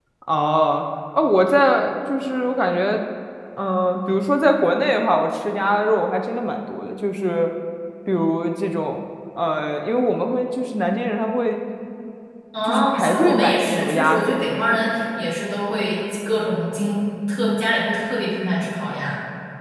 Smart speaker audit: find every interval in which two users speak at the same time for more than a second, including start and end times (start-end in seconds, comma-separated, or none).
12.7-14.3